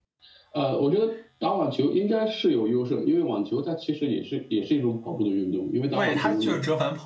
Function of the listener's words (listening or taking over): taking over